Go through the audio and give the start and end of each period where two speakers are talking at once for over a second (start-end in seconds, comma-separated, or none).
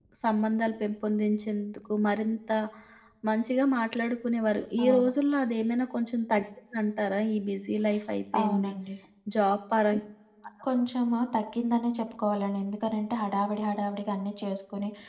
none